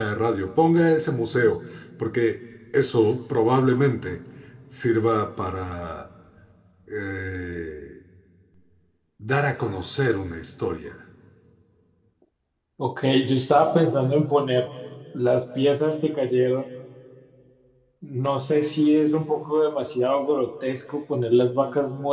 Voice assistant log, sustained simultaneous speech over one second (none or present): none